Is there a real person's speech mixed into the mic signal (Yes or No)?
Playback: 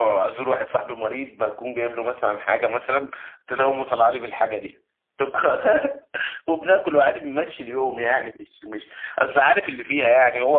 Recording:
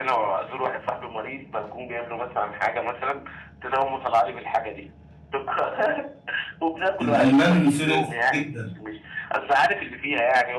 Yes